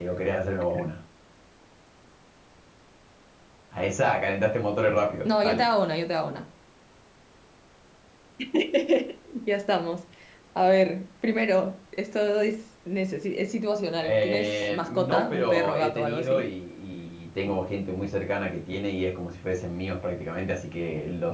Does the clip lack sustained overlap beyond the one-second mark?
No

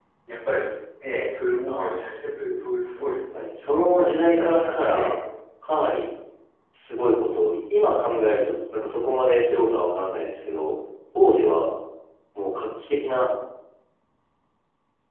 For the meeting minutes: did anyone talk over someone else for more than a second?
Yes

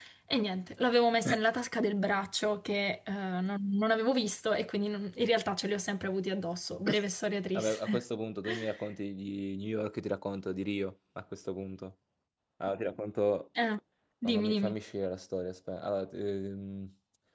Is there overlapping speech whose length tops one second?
No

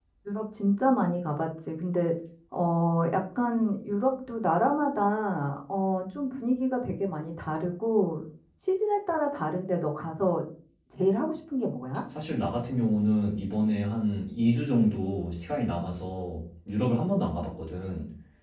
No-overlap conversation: Yes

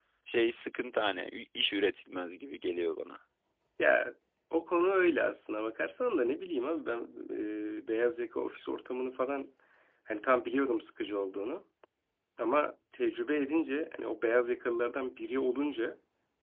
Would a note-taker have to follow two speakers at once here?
No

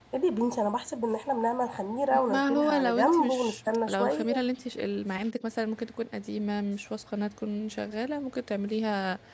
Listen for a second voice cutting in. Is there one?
Yes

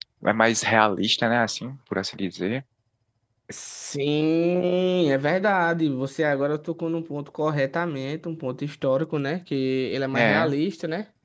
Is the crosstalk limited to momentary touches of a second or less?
Yes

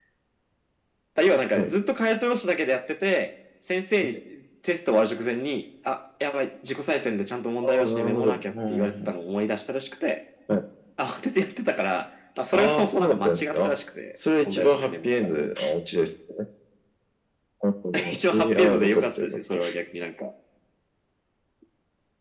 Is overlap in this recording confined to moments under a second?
No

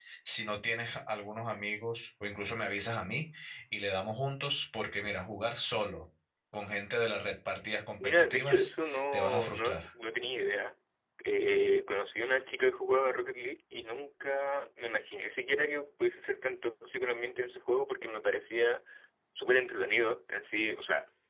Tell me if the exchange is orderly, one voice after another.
No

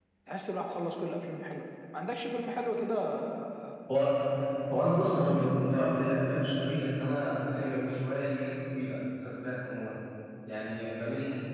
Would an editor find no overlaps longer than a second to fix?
Yes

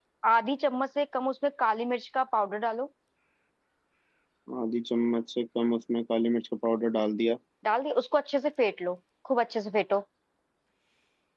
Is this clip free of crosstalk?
Yes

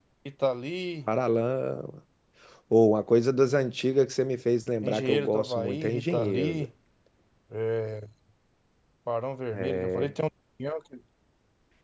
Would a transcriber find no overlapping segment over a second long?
No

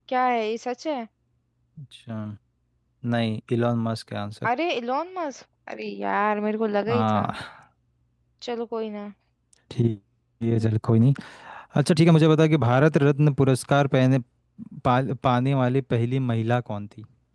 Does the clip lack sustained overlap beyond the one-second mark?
Yes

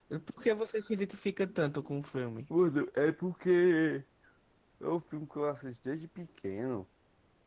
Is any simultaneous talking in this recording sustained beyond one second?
No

